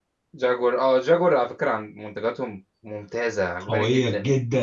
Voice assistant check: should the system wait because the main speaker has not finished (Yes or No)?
No